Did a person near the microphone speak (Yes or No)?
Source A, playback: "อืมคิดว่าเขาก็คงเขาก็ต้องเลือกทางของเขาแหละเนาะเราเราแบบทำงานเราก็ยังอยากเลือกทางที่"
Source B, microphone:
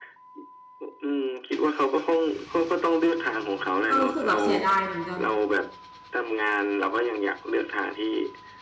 Yes